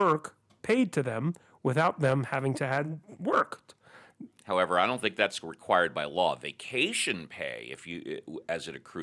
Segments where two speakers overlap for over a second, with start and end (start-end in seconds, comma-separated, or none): none